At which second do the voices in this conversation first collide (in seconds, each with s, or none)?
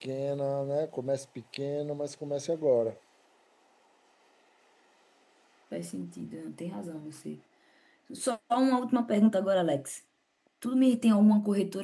none